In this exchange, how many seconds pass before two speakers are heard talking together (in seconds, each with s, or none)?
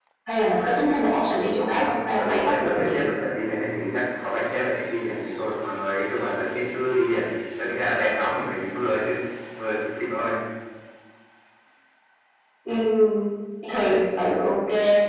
1.2 s